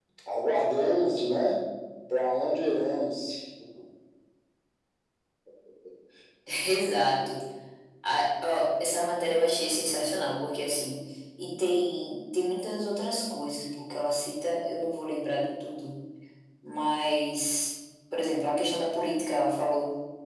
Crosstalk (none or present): none